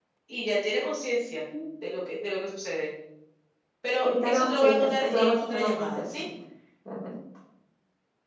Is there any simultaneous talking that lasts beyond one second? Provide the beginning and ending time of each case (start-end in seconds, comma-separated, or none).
4.0-6.2